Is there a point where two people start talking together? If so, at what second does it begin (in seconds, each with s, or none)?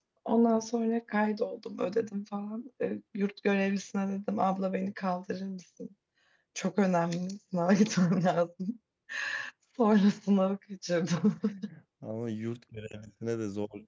none